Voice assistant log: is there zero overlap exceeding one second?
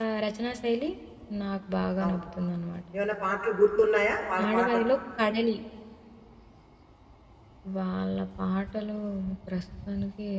Yes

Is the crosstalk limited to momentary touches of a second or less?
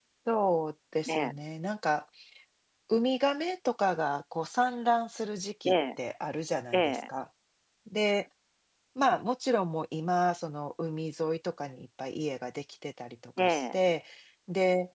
Yes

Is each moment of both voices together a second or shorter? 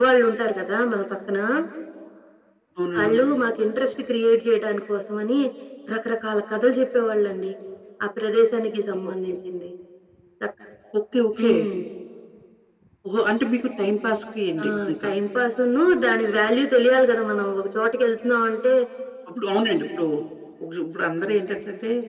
Yes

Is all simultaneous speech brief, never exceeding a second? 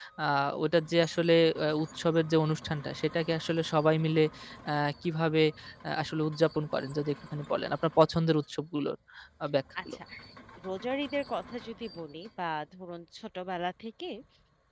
Yes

